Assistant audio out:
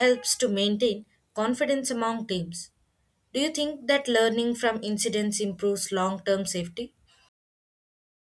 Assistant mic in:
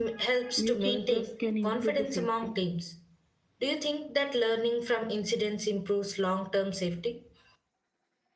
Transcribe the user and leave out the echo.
mutual trust can improve the safety.

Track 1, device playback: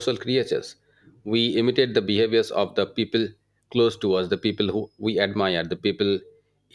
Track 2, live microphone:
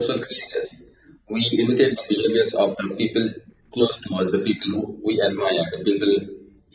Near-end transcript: none

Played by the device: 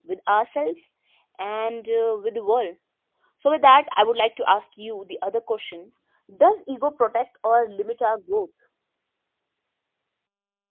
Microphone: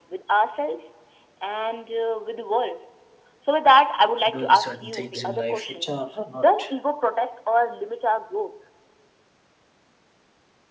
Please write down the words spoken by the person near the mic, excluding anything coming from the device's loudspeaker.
doing certain things in life which are not

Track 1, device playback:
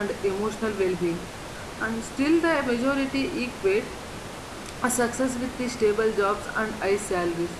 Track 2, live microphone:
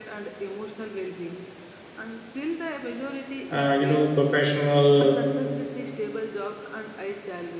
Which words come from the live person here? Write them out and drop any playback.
Uh, you know, professional

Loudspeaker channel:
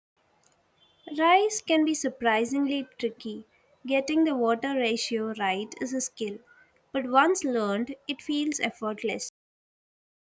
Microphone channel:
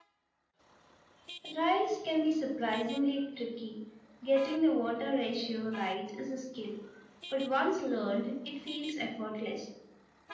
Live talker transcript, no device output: none

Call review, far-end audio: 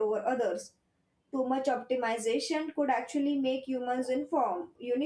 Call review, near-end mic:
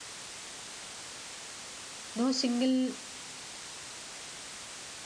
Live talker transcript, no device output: no single

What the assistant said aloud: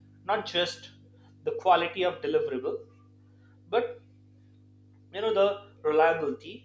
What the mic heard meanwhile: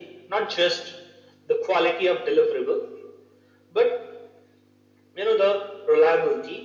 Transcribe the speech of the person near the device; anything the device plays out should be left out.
none

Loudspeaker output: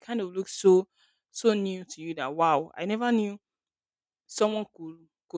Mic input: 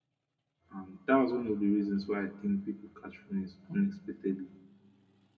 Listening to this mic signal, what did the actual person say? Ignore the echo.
and that was one of the reasons why i think people catch feelings unexpectedly

